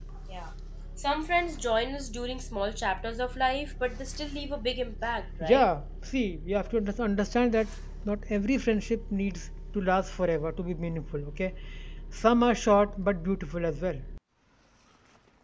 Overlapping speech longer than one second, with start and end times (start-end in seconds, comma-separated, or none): none